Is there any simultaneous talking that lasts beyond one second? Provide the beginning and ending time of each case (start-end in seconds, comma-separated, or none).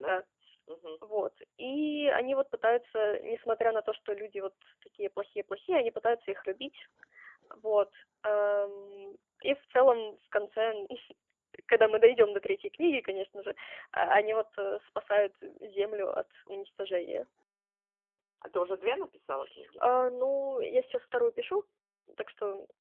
none